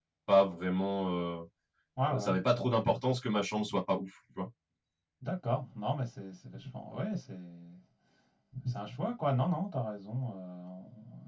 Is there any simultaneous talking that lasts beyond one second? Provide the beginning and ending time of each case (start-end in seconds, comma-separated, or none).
none